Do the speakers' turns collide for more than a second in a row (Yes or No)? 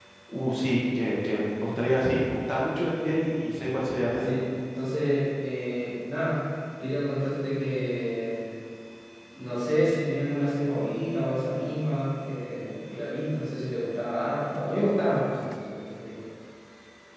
No